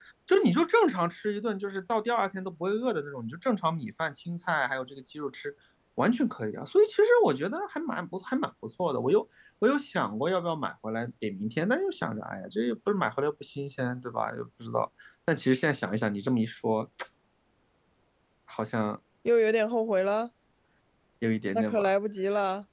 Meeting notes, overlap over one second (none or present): none